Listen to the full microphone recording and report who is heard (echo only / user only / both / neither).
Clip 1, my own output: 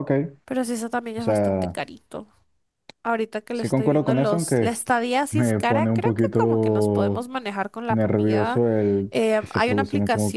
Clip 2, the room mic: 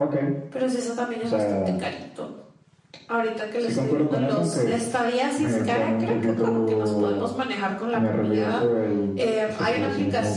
echo only